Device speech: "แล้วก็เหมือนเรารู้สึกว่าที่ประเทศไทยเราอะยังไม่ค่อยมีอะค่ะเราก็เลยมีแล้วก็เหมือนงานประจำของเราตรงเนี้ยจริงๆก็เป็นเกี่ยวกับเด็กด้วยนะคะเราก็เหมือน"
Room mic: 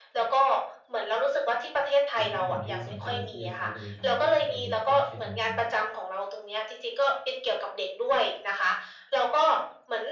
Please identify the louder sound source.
echo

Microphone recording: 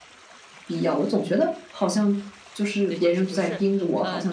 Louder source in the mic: echo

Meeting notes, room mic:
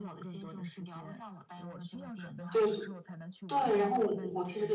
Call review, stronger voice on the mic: user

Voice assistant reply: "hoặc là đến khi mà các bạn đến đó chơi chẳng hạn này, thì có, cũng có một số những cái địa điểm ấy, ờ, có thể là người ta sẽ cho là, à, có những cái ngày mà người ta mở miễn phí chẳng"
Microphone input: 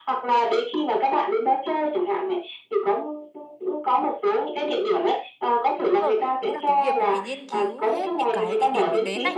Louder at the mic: echo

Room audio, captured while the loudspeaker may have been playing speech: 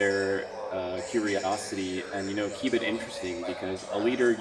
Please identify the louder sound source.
user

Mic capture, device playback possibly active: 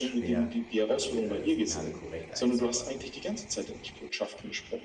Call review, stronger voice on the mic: echo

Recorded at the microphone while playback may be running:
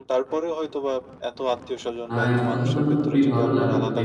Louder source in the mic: user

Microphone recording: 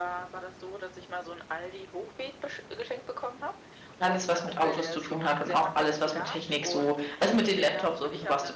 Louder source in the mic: user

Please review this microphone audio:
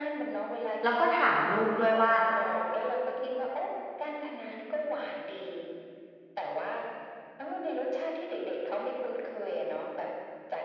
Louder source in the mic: user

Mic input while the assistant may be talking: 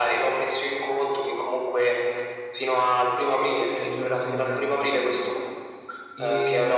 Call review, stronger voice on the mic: echo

